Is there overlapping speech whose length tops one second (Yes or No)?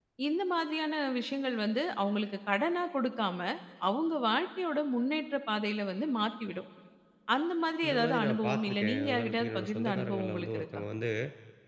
Yes